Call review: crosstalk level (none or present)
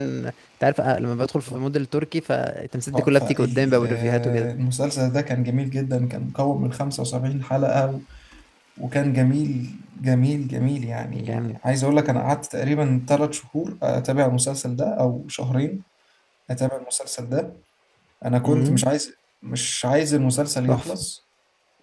present